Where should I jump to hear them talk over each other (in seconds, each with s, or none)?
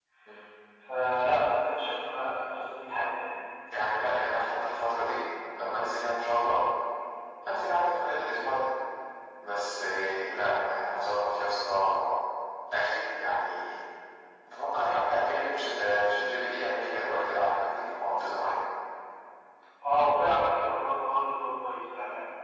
none